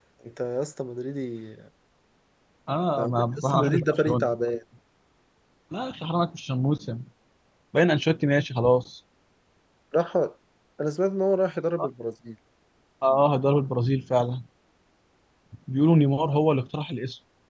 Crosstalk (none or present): present